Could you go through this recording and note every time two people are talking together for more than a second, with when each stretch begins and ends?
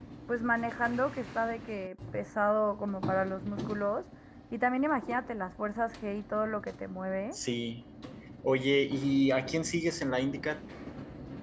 none

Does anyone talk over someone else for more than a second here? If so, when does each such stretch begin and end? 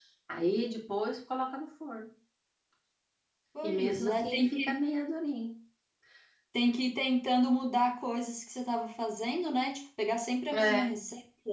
3.6-4.8

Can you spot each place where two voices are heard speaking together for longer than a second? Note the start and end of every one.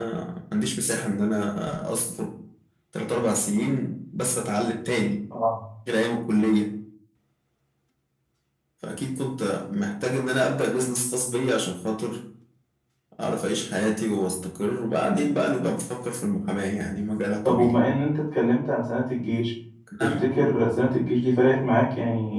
none

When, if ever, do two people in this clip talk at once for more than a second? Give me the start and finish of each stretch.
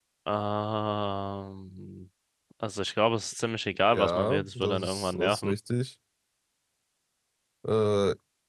3.8-5.5

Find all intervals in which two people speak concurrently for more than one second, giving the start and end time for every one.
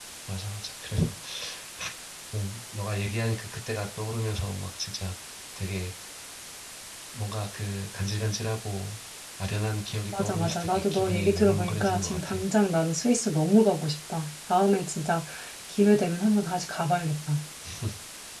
10.2-12.4

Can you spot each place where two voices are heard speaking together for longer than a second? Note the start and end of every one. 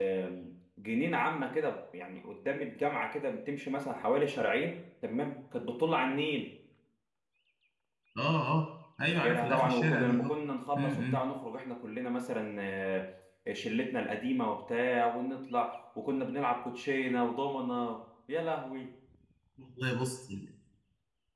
9.1-10.4

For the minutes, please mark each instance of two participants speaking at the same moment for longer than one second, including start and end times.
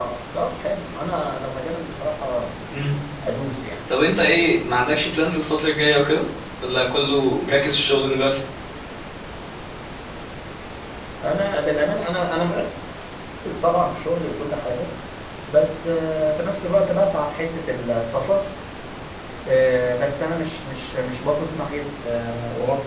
none

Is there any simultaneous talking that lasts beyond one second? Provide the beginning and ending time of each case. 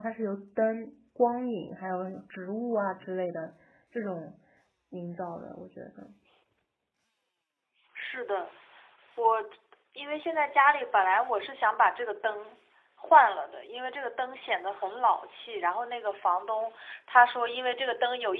none

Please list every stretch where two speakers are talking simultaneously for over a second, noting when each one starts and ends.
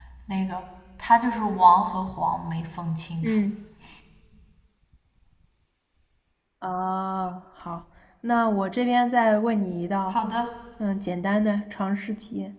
none

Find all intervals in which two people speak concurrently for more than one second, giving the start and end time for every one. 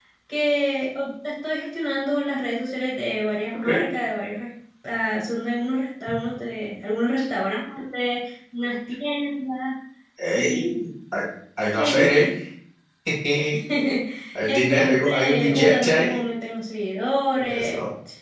14.5-16.2

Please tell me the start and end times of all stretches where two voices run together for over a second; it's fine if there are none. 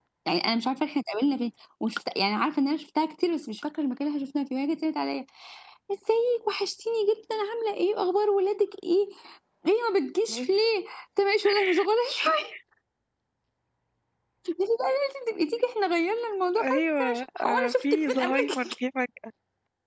16.6-18.7

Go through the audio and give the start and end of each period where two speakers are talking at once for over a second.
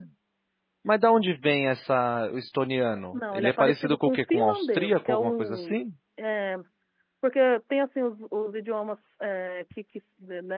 3.1-5.8

